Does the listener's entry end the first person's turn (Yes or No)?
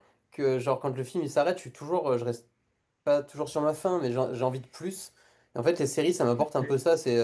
No